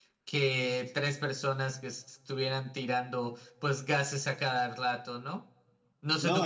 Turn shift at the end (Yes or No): Yes